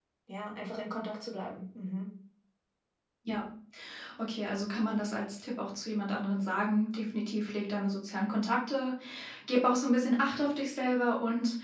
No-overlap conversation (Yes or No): Yes